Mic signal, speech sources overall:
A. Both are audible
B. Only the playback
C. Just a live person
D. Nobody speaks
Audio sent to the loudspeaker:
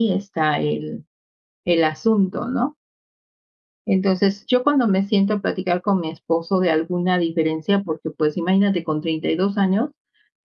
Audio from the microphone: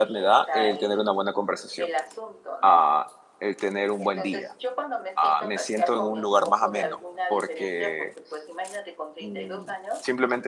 A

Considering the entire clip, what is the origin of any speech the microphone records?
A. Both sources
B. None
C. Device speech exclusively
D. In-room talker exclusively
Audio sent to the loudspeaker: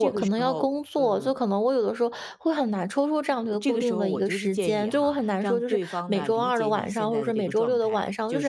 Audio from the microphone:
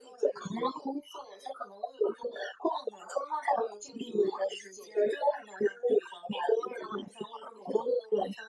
C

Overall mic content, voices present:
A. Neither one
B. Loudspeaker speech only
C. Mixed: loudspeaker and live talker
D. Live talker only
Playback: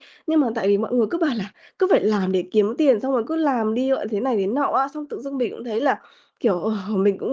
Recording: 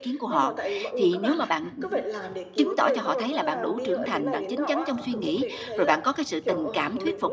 C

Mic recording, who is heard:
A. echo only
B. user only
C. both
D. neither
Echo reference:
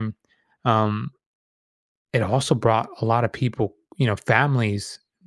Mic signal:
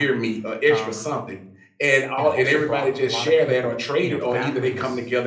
C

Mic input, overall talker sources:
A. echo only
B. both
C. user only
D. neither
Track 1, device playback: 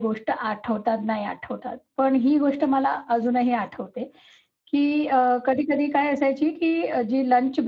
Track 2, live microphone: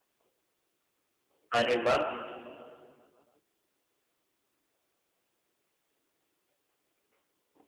C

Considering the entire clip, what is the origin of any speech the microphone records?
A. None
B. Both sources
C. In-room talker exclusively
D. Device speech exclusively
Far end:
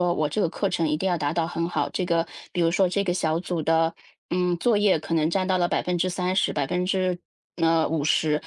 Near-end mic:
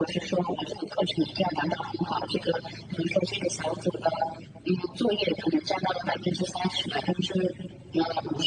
D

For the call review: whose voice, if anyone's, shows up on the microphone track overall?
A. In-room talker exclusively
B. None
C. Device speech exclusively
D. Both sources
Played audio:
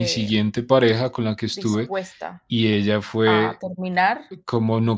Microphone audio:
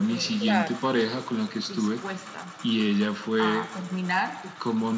D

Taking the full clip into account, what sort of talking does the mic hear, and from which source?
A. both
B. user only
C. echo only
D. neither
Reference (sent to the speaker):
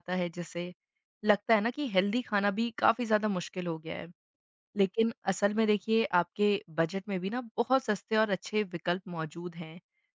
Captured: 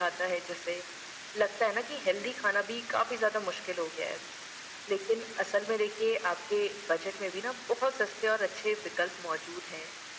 C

